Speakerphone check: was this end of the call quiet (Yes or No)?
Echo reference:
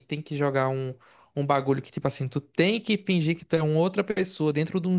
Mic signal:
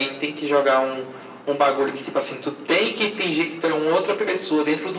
Yes